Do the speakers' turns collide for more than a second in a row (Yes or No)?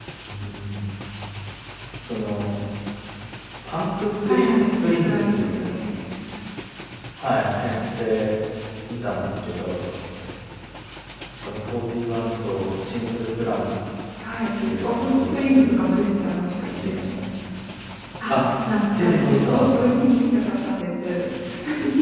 Yes